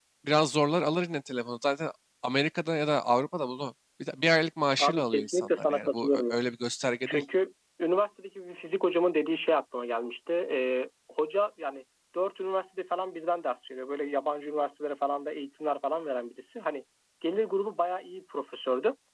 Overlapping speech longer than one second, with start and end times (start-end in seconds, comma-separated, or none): 4.8-6.4